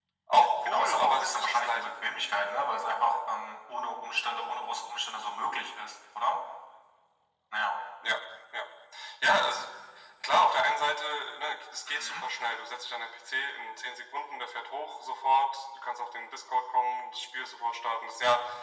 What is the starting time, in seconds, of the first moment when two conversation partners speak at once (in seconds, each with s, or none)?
0.6 s